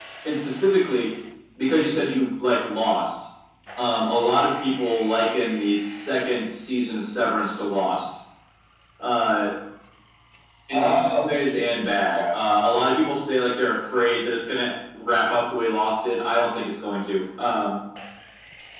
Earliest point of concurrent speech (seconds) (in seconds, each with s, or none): 10.7 s